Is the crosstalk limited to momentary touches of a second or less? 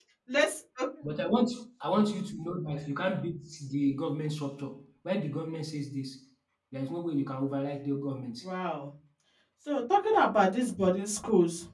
Yes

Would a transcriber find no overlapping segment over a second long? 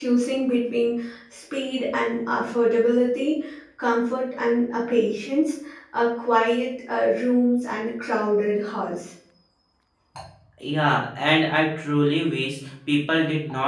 Yes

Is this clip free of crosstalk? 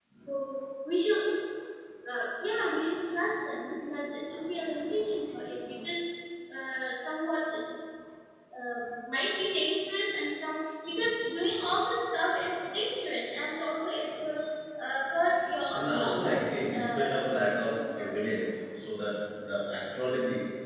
No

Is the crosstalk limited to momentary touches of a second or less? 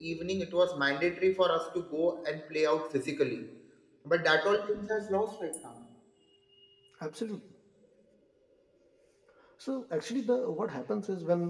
Yes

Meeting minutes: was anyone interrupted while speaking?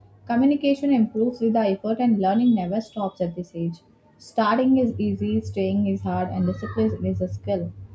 No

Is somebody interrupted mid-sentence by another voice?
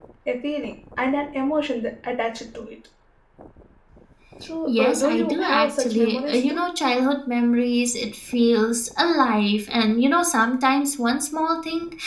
Yes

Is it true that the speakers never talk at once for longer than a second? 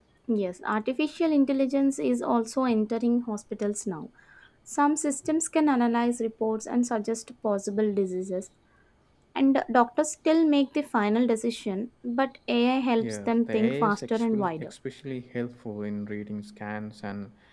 No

